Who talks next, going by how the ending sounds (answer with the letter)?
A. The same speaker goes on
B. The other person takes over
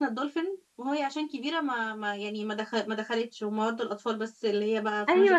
B